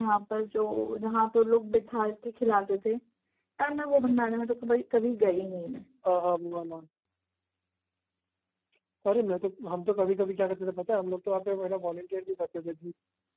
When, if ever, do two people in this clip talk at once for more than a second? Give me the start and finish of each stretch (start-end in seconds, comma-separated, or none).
none